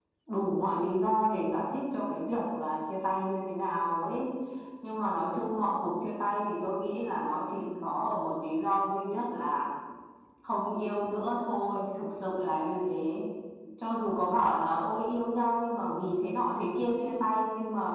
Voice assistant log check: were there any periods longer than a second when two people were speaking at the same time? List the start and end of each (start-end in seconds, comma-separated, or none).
none